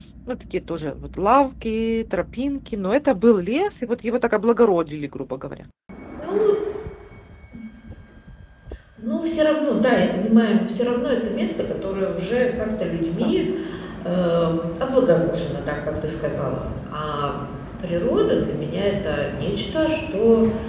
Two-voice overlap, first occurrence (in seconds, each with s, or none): none